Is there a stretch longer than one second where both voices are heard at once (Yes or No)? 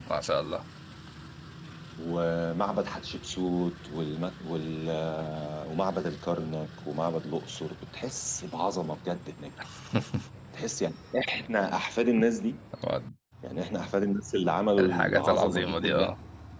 Yes